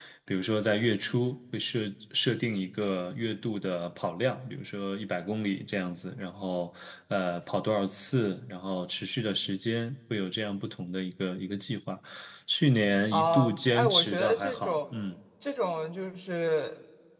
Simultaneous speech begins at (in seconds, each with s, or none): 13.1 s